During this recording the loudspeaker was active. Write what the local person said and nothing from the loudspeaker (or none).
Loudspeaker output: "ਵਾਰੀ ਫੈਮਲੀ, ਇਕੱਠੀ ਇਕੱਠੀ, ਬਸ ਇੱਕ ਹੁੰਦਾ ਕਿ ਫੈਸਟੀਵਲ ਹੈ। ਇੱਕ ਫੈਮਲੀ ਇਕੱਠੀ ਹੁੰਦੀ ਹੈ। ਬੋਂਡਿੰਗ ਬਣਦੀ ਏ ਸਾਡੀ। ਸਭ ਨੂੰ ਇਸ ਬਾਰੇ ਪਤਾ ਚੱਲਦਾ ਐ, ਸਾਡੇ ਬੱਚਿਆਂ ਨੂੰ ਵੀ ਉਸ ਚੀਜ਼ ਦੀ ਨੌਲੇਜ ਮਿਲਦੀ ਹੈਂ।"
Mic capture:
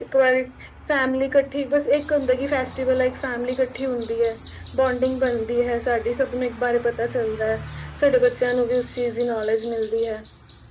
none